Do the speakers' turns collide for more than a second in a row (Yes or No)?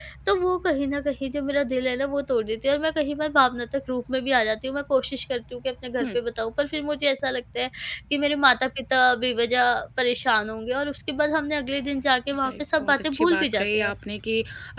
Yes